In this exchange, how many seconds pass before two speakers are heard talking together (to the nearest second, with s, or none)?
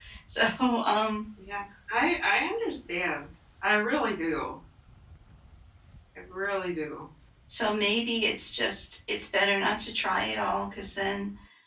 none